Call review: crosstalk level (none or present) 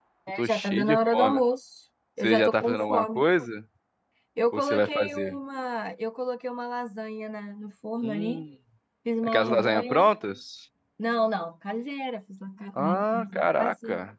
present